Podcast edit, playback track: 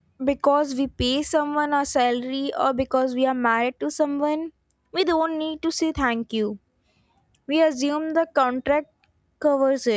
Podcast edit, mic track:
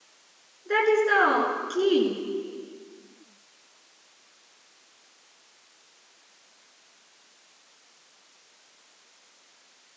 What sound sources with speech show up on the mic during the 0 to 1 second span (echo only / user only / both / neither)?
user only